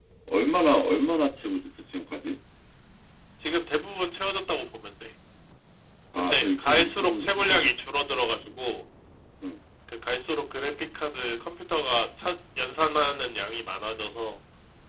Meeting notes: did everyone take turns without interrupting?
No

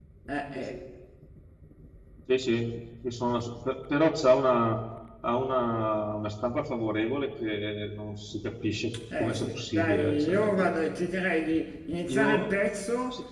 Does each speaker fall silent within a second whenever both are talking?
No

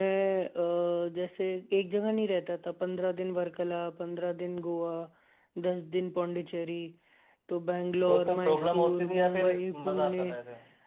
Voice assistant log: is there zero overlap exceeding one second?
No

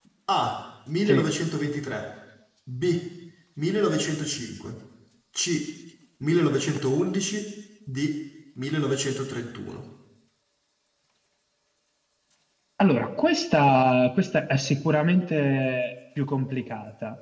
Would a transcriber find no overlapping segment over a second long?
Yes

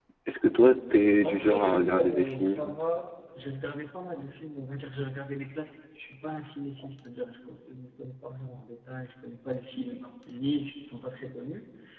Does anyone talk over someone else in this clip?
Yes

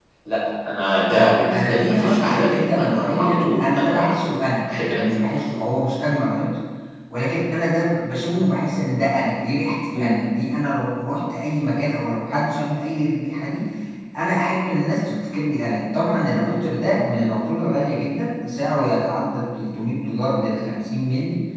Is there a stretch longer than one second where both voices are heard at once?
Yes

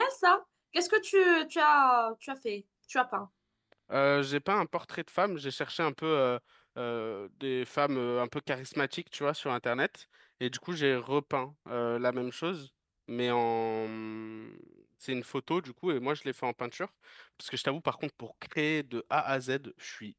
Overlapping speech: No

